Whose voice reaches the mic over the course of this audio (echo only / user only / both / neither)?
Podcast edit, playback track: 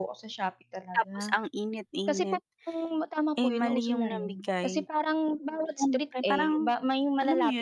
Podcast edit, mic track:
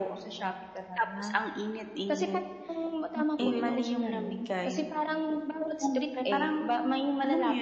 both